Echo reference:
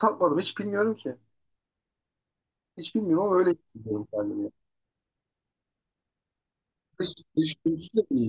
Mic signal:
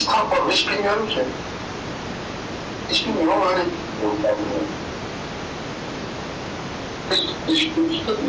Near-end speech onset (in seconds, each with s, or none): none